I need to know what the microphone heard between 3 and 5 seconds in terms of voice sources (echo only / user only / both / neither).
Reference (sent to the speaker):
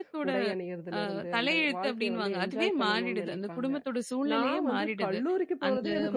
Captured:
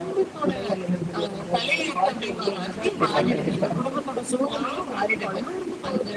both